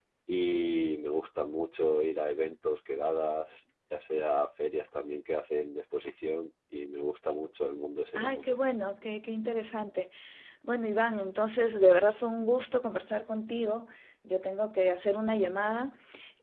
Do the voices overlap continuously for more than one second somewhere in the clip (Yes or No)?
No